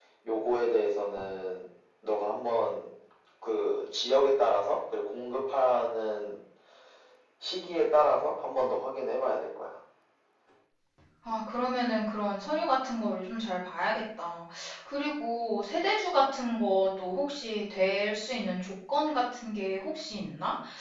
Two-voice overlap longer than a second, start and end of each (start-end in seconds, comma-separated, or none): none